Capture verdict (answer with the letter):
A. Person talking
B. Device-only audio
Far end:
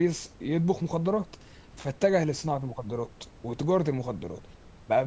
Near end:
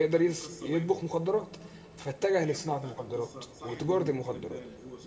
A